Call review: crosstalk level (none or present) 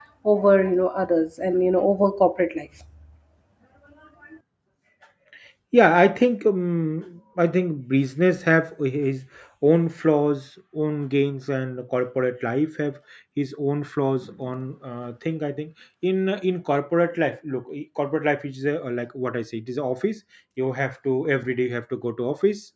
none